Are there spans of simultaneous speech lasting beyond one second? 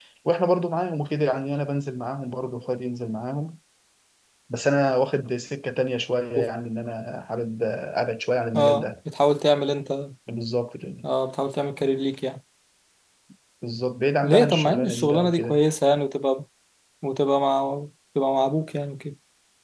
Yes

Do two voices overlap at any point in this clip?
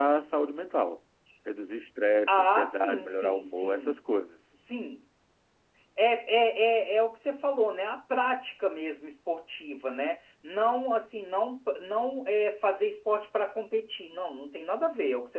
Yes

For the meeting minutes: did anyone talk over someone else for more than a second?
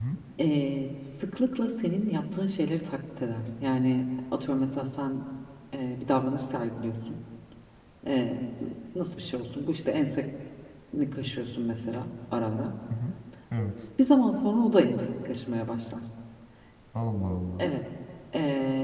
No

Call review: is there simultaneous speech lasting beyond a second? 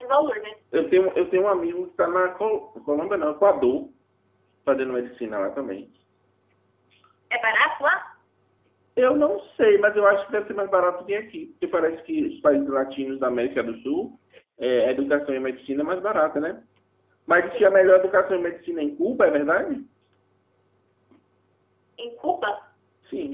No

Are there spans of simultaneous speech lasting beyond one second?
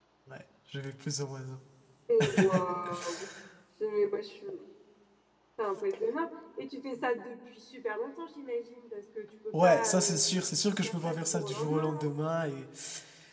Yes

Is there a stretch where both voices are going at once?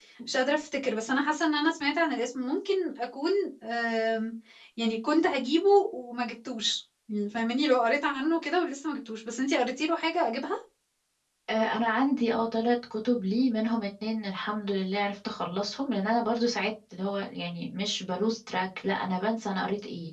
No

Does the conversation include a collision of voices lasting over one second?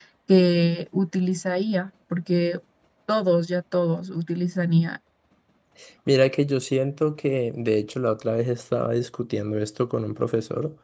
No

